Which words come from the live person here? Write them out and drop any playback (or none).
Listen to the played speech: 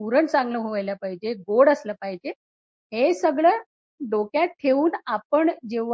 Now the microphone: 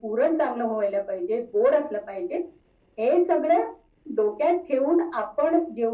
none